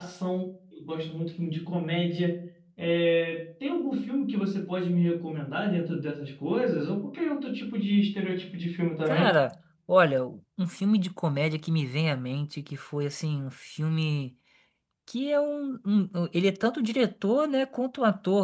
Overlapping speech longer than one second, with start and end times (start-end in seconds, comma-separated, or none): none